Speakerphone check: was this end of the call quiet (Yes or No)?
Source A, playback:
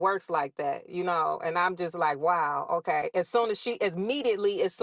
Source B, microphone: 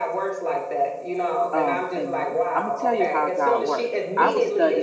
No